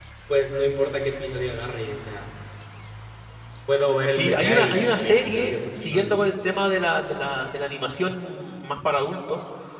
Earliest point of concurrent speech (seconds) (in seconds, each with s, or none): 4.1 s